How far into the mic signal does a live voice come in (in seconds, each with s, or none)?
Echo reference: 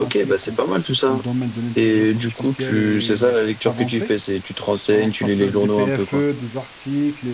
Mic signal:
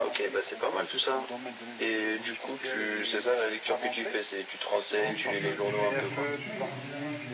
4.9 s